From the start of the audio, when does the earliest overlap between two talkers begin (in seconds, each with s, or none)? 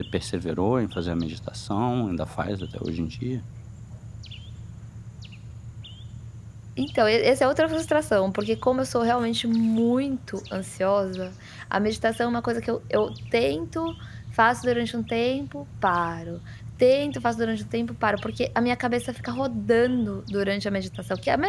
none